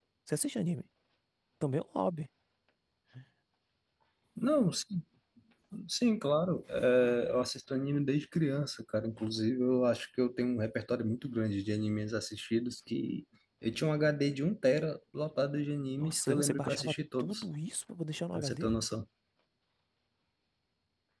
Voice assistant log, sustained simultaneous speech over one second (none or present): present